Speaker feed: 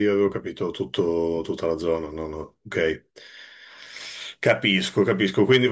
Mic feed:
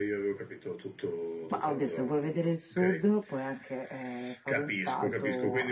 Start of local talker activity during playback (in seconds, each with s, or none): 1.5 s